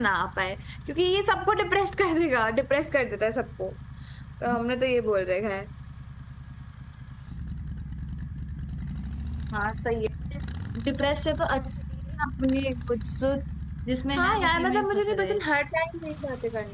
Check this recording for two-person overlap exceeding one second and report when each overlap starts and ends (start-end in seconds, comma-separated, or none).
14.2-15.4